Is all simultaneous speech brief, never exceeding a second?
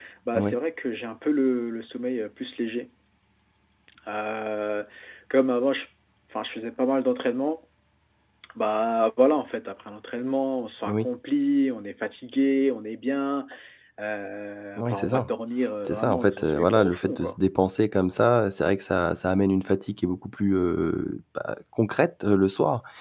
No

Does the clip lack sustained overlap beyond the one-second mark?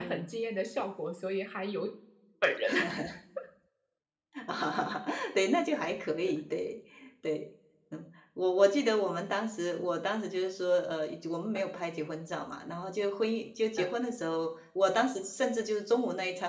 Yes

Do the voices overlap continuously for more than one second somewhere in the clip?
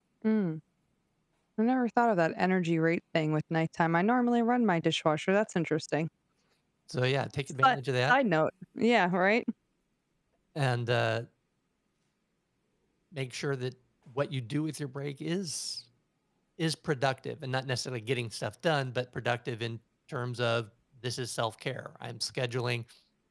No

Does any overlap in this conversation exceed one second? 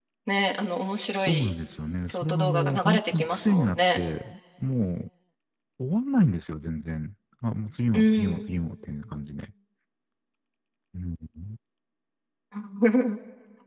Yes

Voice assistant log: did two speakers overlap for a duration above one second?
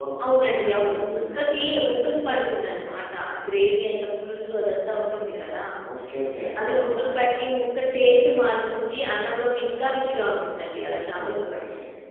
Yes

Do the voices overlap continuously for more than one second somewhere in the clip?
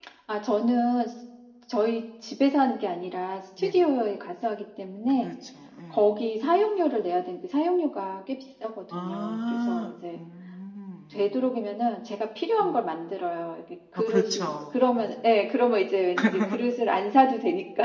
Yes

